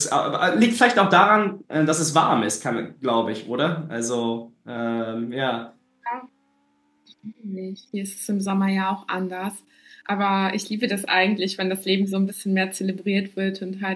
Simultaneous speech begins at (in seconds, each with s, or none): none